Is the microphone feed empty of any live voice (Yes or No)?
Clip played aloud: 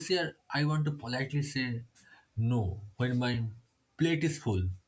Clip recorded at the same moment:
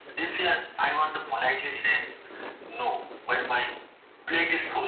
Yes